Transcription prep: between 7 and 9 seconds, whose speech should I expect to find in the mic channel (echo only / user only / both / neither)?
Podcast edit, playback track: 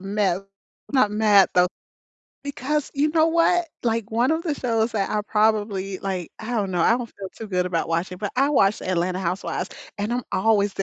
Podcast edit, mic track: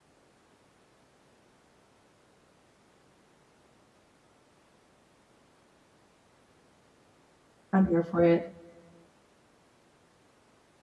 user only